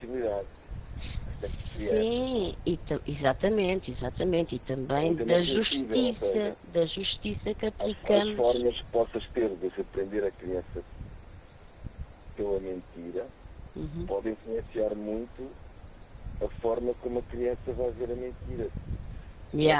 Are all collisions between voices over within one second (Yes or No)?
No